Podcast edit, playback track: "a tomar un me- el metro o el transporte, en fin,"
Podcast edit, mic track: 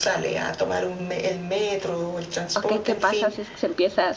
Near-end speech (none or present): present